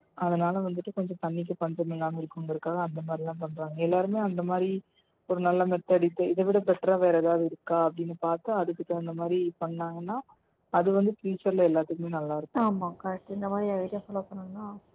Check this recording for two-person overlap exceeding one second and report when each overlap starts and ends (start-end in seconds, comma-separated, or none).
none